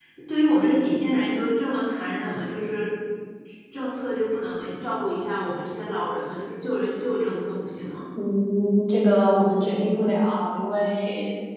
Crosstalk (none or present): none